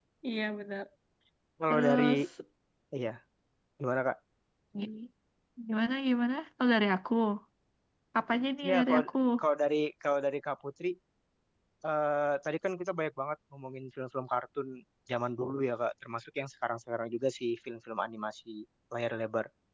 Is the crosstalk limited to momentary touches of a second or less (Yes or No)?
Yes